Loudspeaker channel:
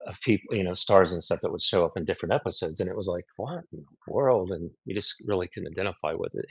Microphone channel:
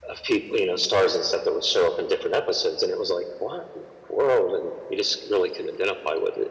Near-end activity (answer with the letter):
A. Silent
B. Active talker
A